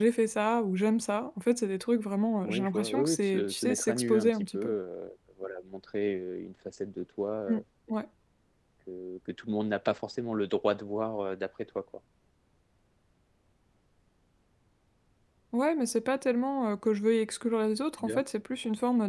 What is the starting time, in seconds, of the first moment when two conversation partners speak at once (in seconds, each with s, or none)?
2.4 s